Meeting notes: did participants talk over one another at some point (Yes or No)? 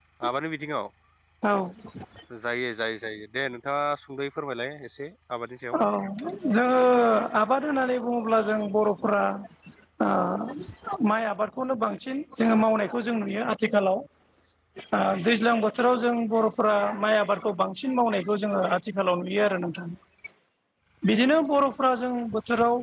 No